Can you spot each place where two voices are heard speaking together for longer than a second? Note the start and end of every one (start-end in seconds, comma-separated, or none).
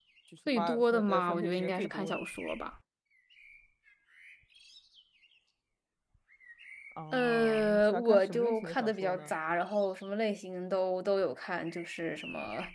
0.6-2.2, 7.1-9.3